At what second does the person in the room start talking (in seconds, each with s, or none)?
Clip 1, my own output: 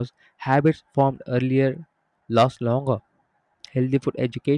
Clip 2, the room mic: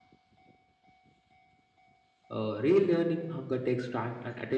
2.4 s